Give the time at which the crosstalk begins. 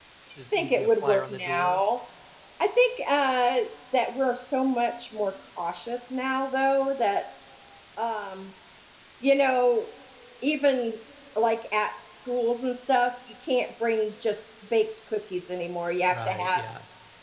0.5 s

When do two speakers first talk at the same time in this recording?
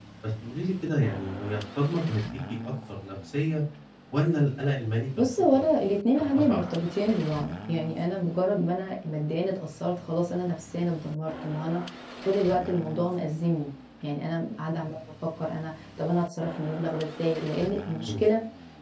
5.2 s

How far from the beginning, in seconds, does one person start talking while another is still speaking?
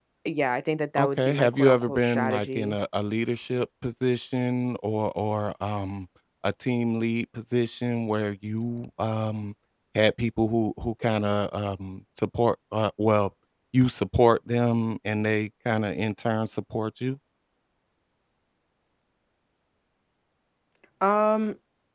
1.0 s

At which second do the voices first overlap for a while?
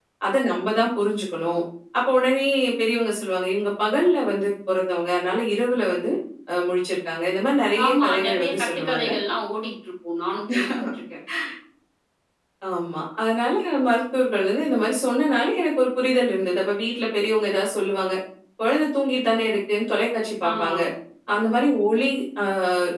7.8 s

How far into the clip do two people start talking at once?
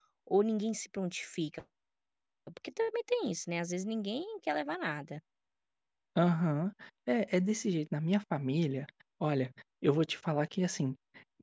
none

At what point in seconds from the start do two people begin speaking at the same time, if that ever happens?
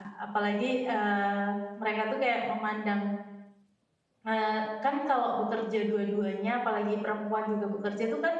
none

